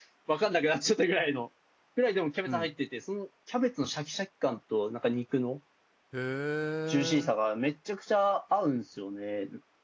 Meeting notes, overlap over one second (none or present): none